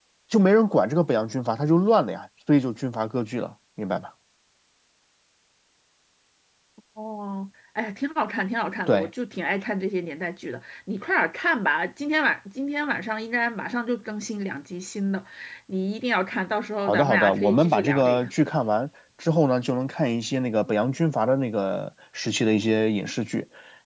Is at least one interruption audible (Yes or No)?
Yes